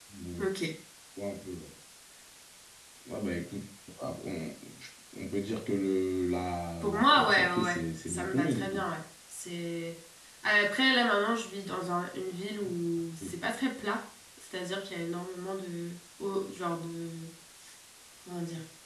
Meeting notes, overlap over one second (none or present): present